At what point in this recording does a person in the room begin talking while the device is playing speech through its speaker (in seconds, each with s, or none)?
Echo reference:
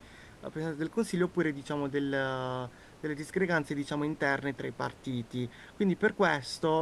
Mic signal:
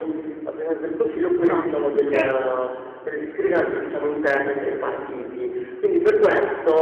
1.4 s